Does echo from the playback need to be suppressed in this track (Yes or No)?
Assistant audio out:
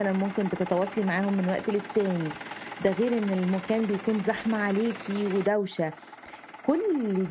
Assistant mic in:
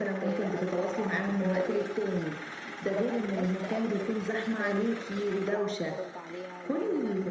Yes